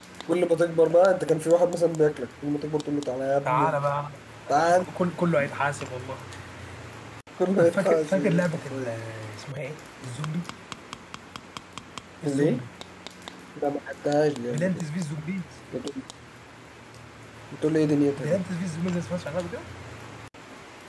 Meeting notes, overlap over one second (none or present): present